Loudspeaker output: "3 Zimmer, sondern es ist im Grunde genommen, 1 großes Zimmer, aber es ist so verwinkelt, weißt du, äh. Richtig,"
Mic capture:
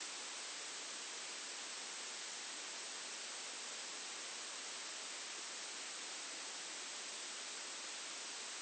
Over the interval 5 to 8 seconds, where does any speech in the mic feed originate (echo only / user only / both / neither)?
neither